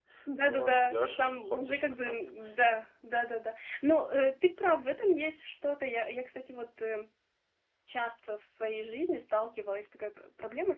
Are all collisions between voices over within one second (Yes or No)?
No